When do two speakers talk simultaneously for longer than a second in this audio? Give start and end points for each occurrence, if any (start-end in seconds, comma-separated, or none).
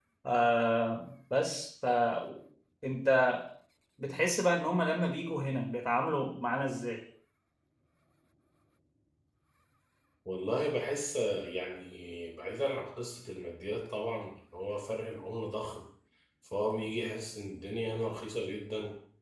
none